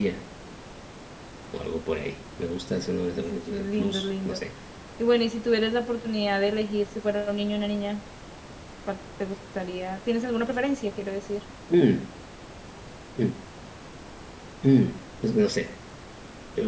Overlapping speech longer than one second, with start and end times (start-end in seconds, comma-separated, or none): 3.2-4.4